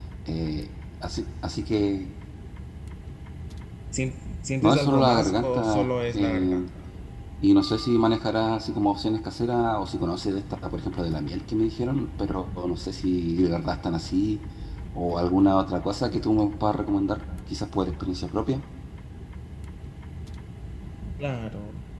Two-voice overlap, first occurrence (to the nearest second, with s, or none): 5 s